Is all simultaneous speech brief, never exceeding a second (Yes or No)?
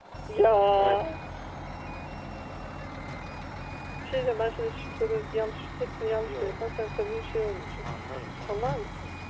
Yes